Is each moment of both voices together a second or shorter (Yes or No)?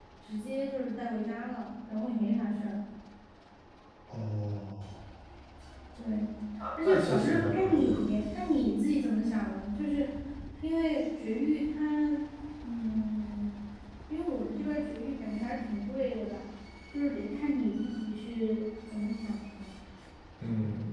No